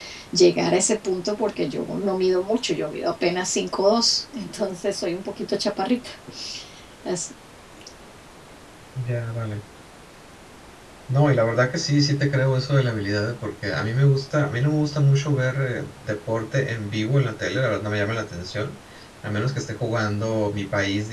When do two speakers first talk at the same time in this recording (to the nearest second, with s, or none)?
none